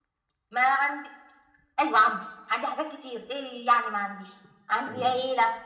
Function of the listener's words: listening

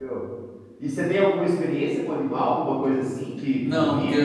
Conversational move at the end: taking over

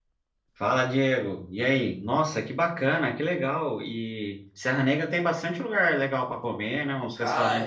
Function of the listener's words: taking over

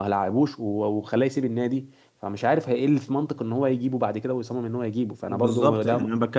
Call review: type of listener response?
taking over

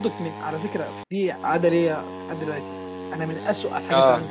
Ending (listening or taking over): listening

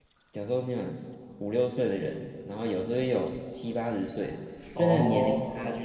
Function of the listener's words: listening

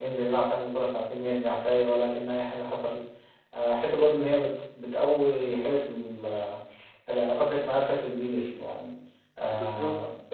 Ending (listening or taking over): listening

